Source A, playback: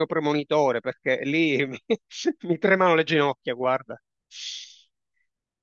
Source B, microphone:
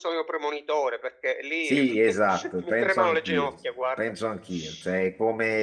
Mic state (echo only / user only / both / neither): both